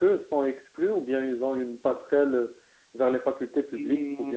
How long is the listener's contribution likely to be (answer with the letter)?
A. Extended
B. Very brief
A